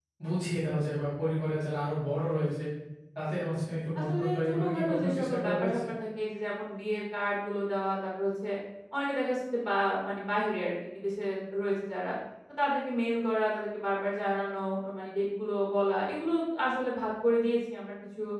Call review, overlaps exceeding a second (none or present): present